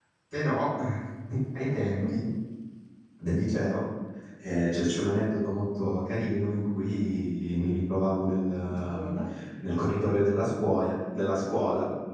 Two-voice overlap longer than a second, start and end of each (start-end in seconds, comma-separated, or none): none